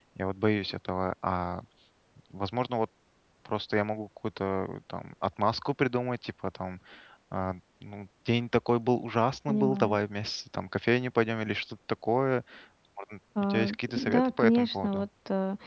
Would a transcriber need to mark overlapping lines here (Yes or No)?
Yes